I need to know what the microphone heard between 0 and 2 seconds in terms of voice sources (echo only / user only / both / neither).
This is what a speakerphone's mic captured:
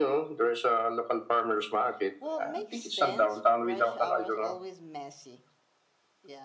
echo only